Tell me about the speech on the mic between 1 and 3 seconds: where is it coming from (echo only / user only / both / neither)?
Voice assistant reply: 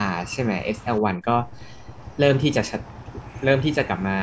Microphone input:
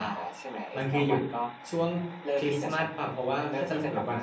both